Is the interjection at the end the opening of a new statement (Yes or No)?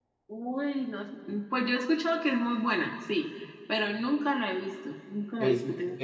Yes